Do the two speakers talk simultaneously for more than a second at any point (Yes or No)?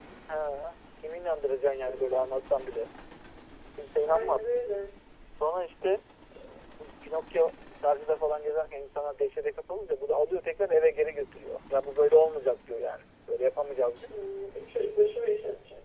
No